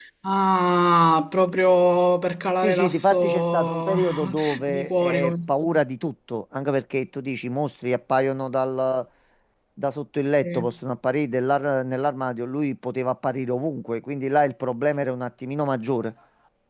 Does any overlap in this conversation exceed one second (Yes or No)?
Yes